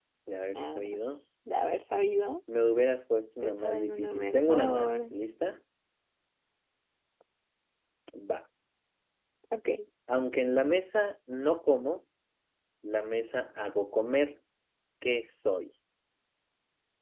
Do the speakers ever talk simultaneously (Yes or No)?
Yes